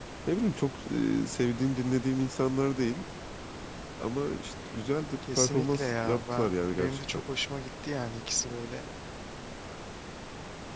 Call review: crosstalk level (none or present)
present